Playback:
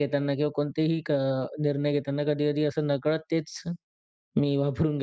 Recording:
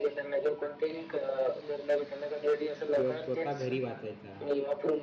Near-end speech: present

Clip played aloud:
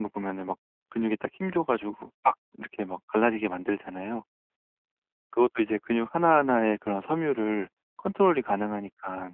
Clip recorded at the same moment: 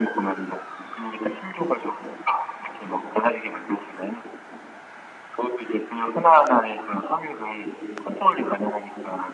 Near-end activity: none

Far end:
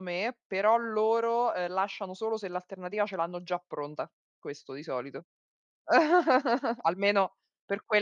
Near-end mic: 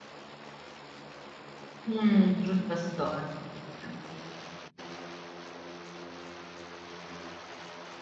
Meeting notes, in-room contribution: present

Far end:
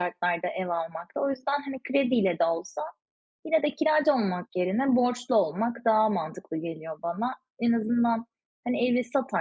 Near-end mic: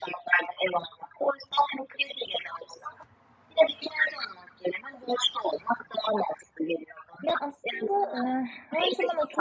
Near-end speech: present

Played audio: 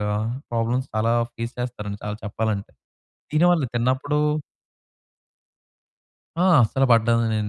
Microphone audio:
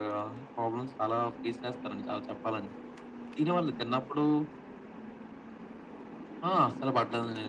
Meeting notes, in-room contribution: none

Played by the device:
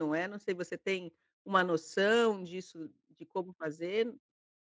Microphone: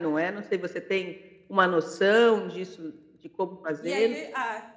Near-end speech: present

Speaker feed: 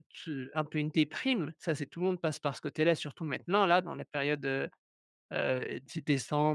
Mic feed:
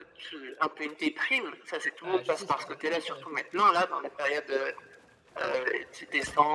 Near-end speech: present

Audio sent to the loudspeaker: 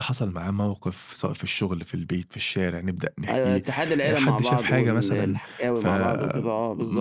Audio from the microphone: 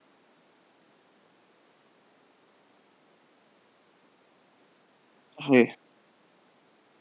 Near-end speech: present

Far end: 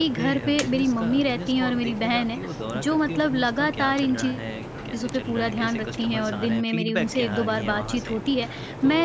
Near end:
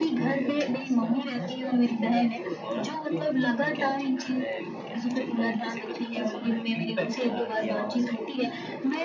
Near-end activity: none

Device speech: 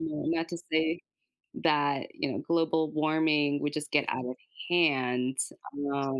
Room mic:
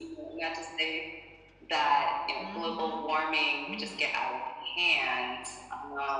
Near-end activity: present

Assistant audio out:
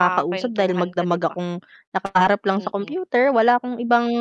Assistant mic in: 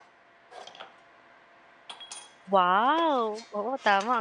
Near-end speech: present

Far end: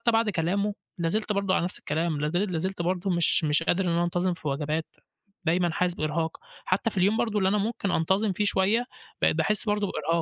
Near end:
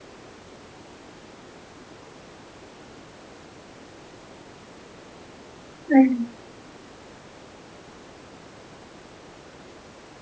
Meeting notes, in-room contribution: present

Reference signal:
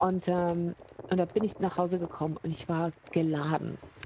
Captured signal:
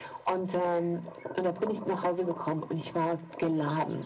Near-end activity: none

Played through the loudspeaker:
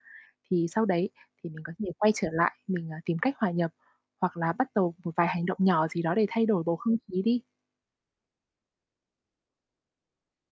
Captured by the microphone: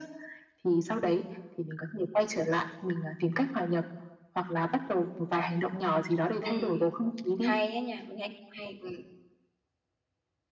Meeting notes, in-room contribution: present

